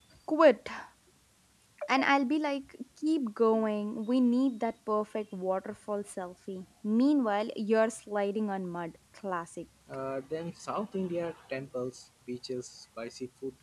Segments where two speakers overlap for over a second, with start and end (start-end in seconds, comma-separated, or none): none